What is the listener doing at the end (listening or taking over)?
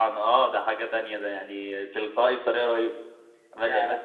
listening